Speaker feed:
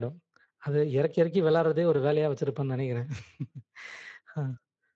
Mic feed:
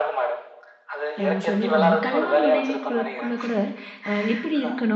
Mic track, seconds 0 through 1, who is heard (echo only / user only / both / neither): echo only